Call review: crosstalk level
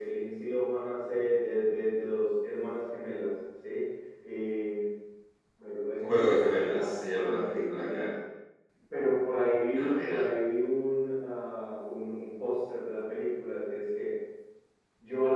present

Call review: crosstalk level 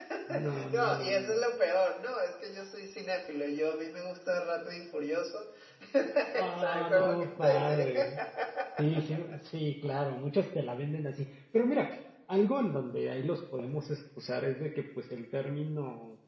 present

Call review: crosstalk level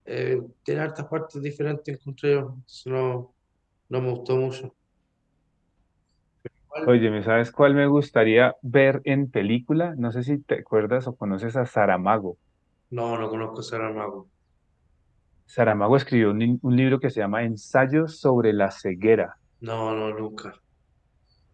none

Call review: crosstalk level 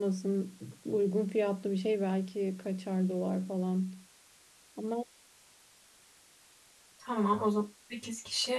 none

